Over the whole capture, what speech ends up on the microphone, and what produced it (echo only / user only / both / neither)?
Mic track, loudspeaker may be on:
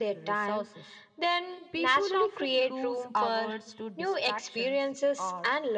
echo only